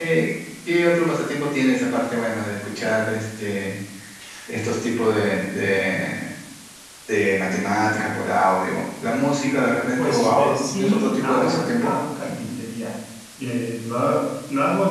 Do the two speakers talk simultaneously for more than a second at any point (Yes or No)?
Yes